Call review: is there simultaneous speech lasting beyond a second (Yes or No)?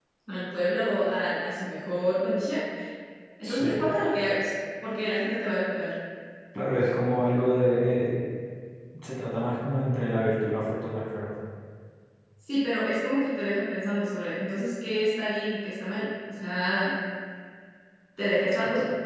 No